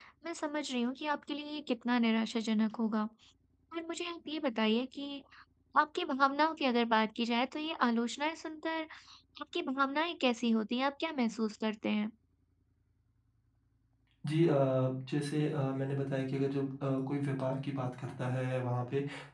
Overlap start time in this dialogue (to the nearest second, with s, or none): none